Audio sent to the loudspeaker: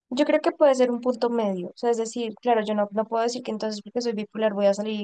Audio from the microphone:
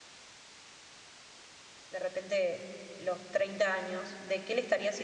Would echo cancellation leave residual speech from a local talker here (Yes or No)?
Yes